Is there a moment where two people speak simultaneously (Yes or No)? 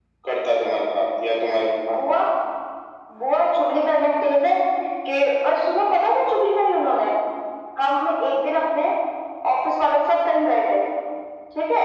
No